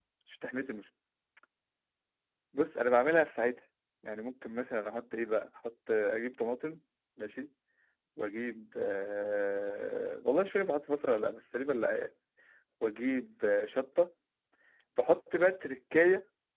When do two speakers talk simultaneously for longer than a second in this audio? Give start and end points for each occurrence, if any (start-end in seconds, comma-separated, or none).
none